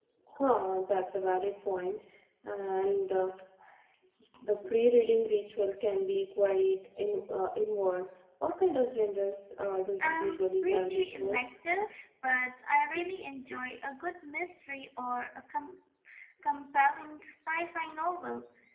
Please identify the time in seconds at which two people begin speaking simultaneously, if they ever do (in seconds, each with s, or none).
10.0 s